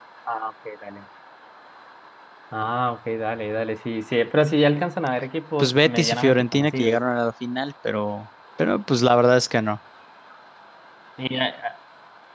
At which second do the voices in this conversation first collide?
5.6 s

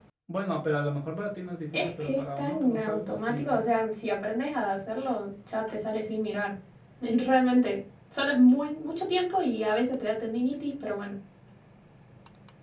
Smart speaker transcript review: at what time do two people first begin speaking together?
1.7 s

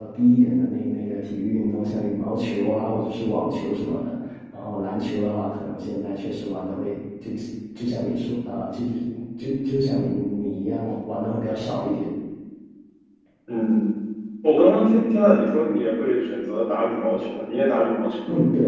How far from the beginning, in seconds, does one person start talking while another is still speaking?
none

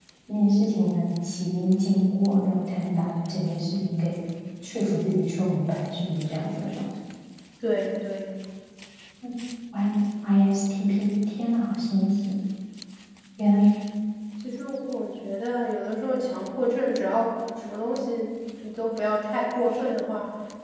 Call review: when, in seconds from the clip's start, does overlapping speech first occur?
none

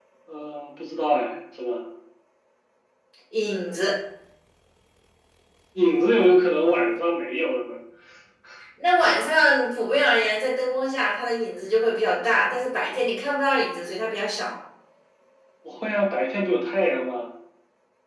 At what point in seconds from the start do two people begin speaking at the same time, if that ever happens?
none

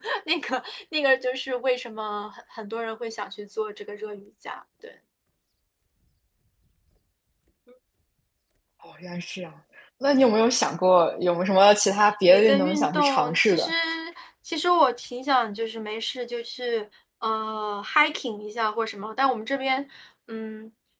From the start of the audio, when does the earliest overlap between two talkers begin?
12.3 s

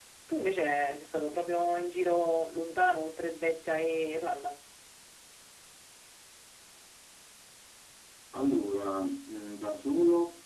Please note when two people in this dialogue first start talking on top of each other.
none

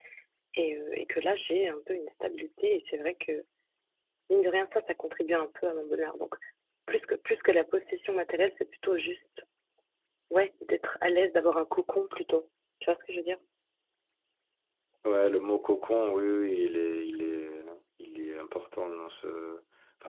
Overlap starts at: none

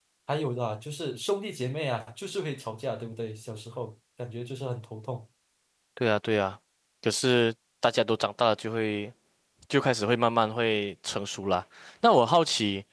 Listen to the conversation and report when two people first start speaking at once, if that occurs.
none

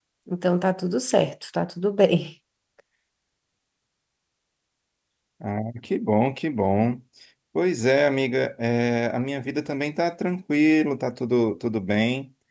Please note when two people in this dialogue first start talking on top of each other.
none

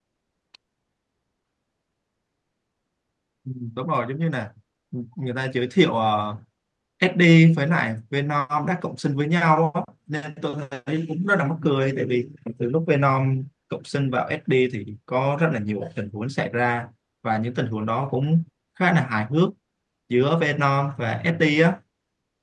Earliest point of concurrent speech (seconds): none

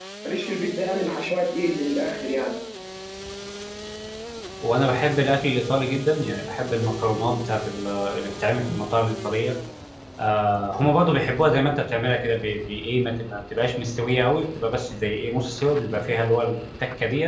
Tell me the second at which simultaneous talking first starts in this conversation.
none

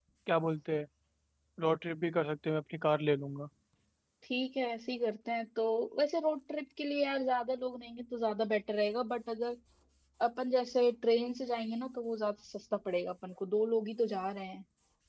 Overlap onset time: none

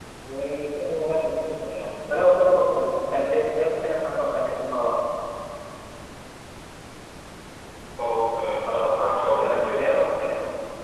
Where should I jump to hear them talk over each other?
8.7 s

